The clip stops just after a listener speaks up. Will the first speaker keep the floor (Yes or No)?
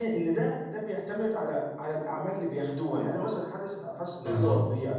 Yes